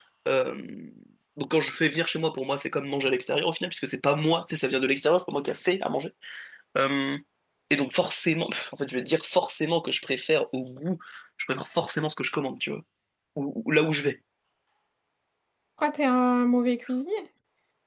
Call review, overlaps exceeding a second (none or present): none